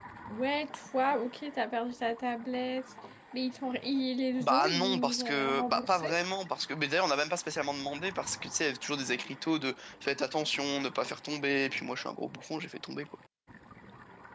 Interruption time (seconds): 4.4 s

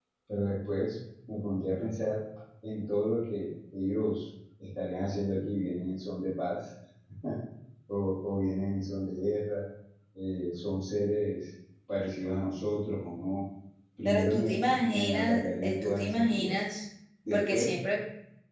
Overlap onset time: 14.1 s

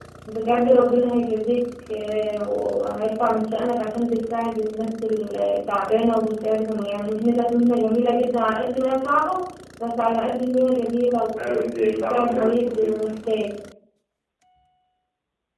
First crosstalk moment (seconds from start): 11.3 s

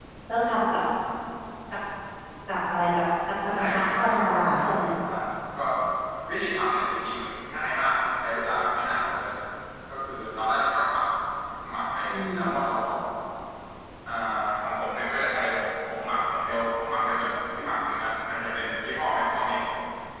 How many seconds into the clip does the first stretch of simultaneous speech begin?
3.5 s

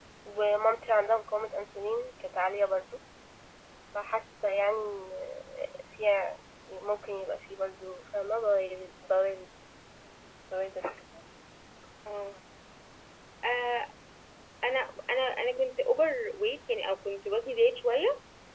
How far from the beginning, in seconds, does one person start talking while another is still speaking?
none

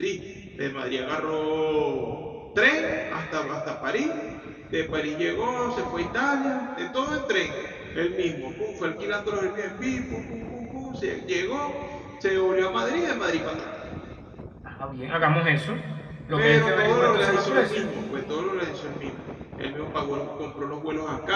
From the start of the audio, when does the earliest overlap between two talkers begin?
16.4 s

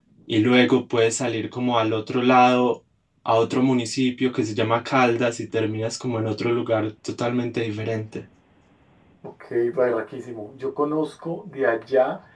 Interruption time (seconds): none

